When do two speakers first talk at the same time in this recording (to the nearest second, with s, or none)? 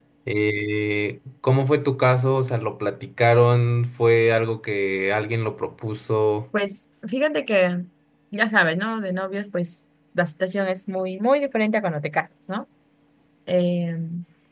none